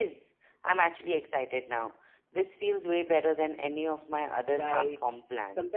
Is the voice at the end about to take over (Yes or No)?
Yes